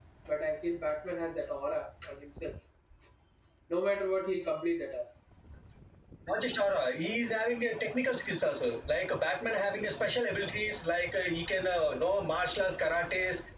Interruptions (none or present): none